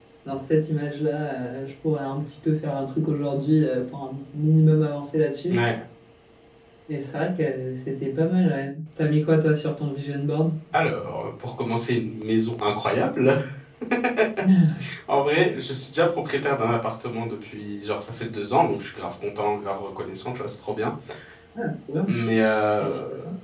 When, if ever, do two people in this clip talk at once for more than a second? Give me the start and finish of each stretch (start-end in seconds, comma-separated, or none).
none